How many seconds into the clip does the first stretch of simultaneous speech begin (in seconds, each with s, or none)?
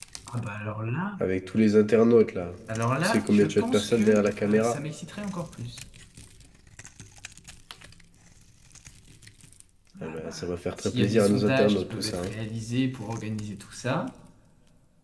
3.0 s